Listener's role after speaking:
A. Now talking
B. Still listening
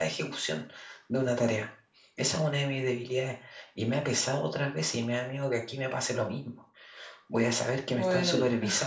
B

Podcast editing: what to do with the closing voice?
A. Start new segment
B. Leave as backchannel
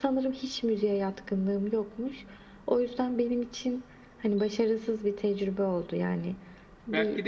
A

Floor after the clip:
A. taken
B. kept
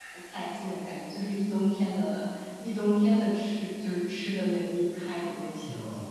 A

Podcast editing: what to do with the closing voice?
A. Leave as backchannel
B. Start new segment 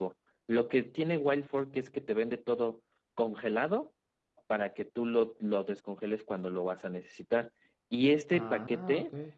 A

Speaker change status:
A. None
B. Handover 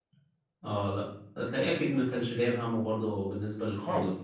B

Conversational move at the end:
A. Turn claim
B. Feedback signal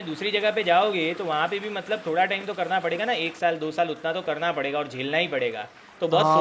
A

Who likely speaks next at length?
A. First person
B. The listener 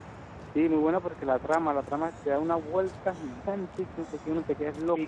B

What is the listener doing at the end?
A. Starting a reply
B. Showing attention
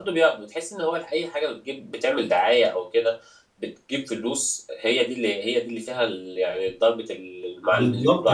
A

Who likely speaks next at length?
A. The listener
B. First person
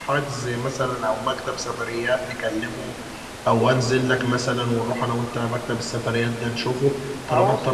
A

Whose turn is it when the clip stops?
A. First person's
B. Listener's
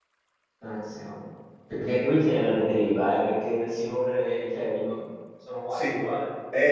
B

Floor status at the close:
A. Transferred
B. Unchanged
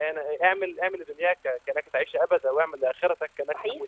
B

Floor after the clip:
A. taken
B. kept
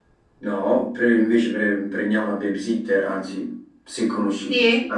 A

